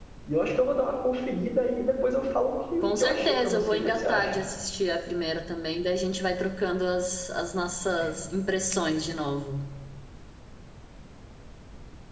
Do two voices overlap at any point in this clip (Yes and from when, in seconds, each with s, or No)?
Yes, from 2.8 s